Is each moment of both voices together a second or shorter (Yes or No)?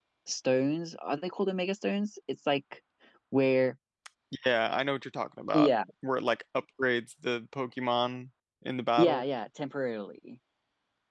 Yes